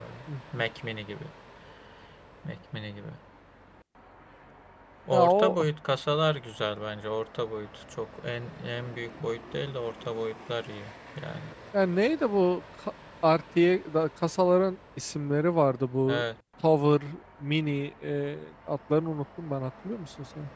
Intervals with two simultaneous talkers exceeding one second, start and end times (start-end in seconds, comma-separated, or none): none